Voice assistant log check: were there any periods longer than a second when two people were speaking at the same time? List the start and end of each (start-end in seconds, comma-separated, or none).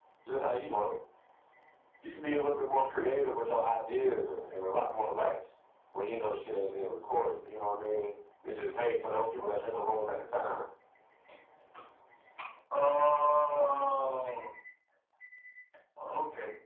none